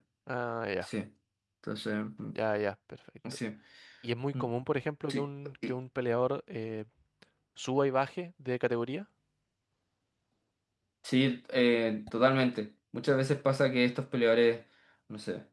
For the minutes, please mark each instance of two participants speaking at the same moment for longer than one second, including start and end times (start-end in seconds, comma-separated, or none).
none